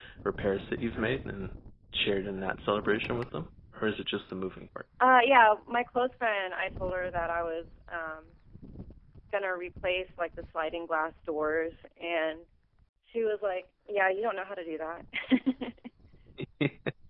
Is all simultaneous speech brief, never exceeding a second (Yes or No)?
Yes